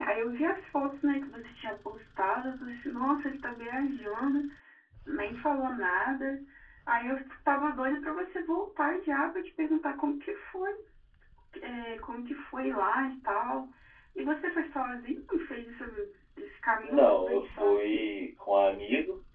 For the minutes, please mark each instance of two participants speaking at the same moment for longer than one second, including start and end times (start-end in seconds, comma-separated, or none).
16.8-18.0